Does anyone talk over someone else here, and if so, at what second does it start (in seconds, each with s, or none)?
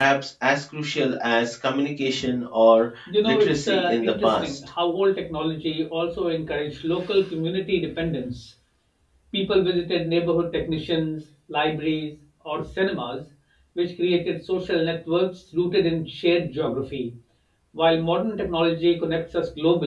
3.1 s